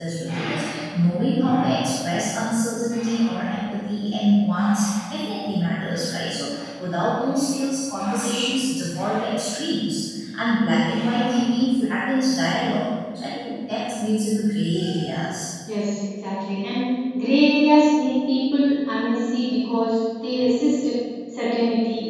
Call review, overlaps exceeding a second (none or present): none